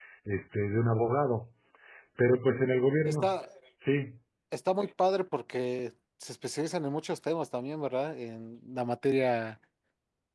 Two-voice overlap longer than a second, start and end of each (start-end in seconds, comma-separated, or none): none